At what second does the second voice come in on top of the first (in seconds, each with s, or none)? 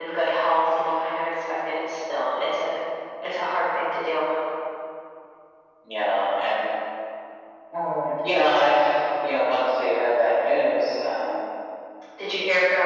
none